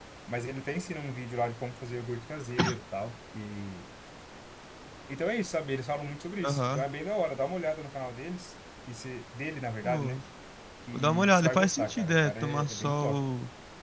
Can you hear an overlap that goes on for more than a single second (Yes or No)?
Yes